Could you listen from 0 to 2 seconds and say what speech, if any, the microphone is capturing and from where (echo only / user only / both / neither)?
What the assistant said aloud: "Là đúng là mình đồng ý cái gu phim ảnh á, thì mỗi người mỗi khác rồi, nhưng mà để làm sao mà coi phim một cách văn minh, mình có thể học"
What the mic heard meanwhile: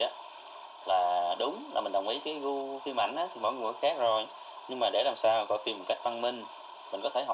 echo only